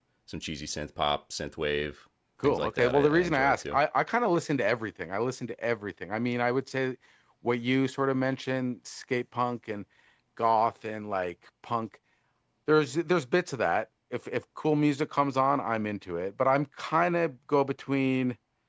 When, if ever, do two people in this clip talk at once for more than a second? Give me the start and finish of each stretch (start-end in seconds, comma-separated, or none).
2.4-3.8